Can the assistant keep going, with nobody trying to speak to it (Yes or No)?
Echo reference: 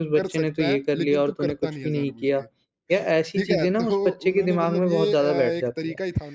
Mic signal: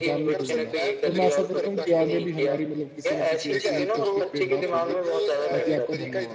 No